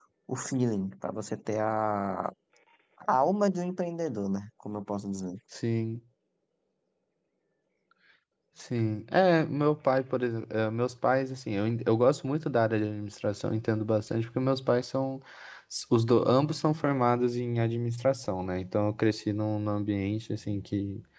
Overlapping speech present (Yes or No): No